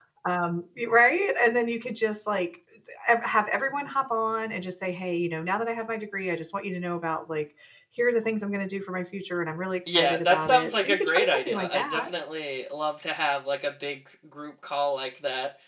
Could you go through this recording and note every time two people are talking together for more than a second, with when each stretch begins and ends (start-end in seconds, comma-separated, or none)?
9.9-12.0